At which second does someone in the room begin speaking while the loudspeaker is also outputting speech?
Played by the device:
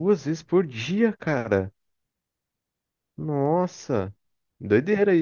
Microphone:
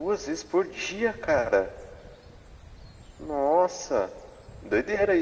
none

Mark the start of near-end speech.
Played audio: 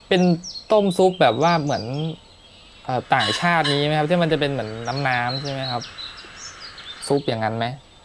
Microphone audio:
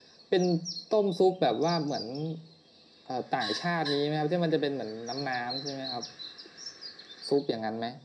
none

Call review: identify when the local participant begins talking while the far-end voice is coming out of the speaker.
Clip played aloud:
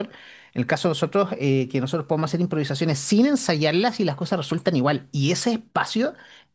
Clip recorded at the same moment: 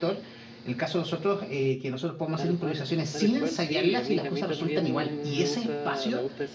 2.3 s

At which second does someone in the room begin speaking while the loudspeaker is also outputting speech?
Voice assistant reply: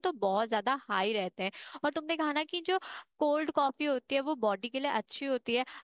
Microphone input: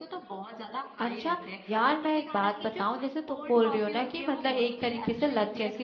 1.0 s

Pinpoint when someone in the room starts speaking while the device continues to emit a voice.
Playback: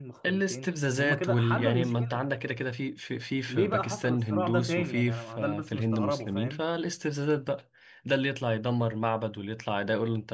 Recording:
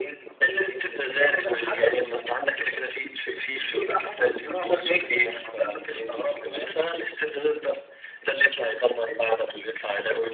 none

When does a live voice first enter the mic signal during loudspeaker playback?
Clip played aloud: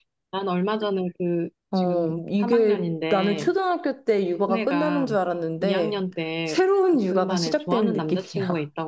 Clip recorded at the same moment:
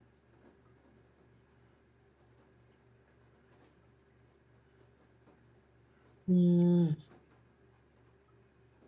6.3 s

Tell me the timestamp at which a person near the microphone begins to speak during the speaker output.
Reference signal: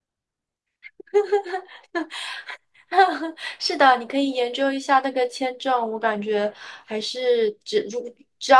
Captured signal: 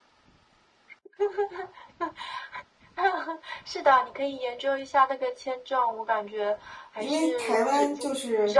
7.0 s

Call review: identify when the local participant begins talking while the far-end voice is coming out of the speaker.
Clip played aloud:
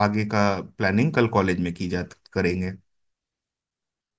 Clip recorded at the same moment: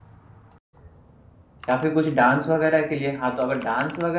1.7 s

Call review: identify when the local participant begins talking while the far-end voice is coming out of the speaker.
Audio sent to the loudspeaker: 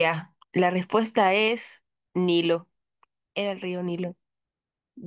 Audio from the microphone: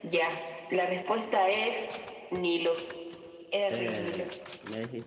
3.7 s

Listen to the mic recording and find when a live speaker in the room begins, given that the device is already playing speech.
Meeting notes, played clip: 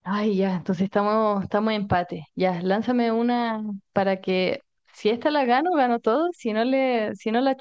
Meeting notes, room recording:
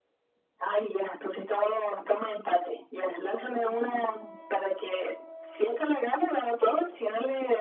none

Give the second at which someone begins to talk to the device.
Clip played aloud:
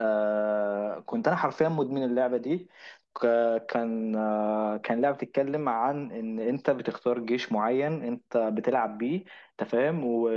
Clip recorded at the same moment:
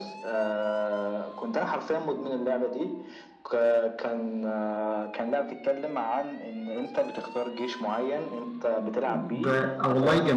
9.1 s

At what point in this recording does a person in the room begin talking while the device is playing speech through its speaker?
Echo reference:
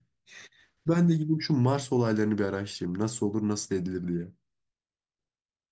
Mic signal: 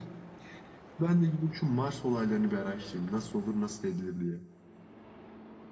none

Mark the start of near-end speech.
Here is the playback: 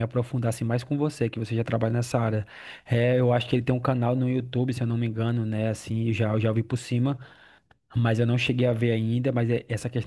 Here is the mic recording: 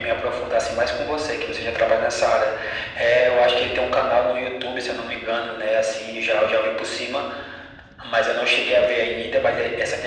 none

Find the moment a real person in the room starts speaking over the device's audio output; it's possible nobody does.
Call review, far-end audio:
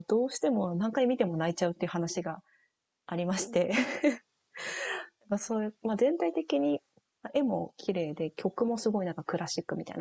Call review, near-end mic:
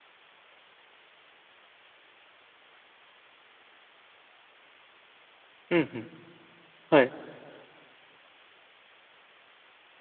5.7 s

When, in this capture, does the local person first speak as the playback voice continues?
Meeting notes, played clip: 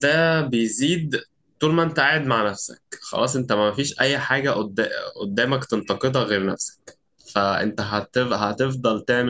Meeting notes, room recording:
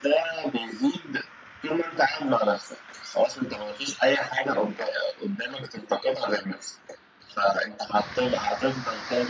none

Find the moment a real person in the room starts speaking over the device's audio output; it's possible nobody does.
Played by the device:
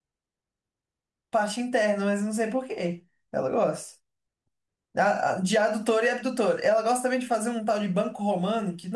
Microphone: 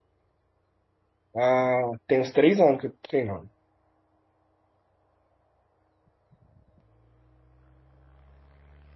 1.3 s

